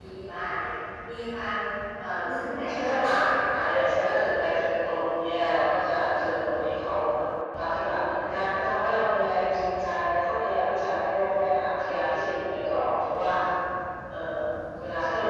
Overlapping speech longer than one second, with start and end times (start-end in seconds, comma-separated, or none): 2.3-3.9